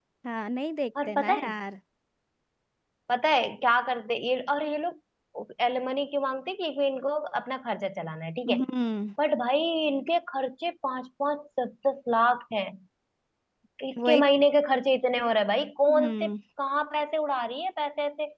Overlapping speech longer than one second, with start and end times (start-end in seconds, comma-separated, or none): none